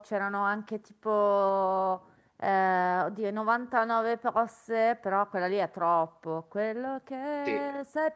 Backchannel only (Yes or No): Yes